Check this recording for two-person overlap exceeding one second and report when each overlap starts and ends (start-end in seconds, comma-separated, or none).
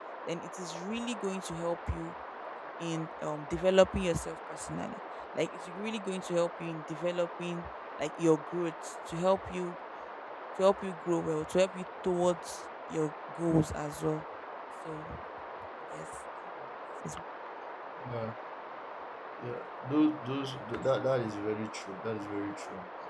none